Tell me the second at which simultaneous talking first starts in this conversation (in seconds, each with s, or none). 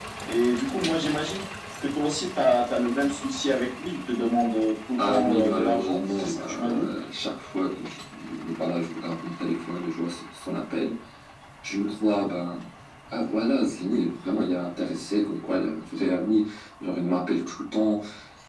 5.0 s